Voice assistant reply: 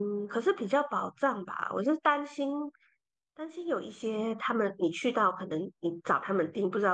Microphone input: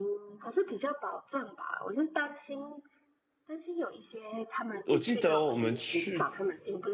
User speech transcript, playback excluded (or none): 我记得我们去